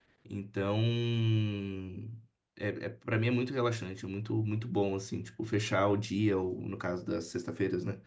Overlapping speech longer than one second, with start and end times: none

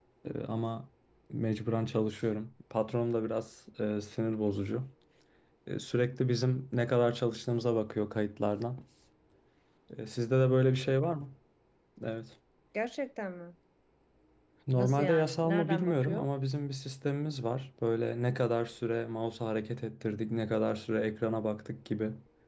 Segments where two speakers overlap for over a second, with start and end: 14.8-16.3

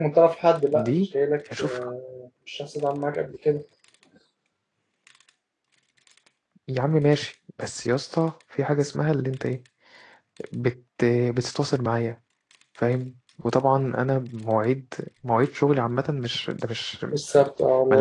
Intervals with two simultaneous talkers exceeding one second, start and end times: none

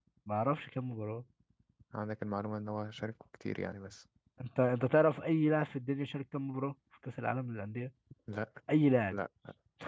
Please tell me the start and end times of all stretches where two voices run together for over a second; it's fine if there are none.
none

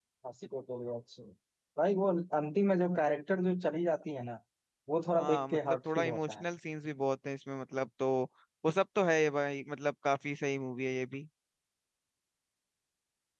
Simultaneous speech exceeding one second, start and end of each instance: 5.2-6.5

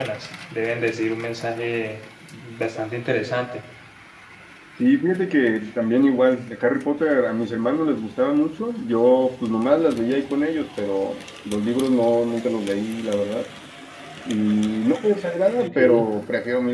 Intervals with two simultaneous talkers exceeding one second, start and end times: none

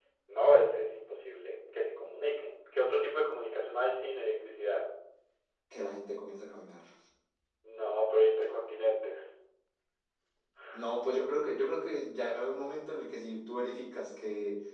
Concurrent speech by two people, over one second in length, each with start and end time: none

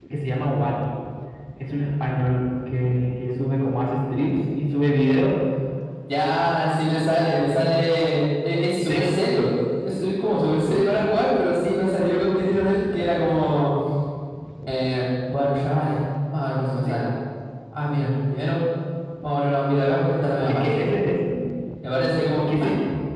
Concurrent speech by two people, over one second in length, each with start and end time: none

